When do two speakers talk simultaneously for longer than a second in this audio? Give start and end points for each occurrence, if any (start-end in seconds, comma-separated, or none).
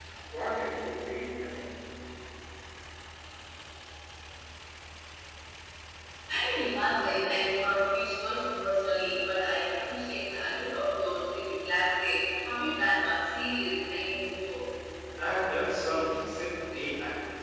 none